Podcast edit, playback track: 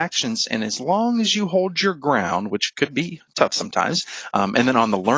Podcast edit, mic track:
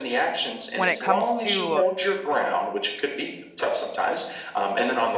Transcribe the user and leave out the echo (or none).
When it comes to